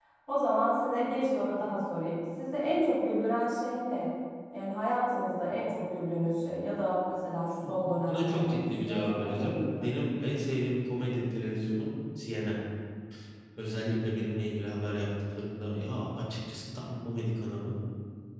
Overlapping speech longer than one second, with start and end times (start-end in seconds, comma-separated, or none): 8.1-9.9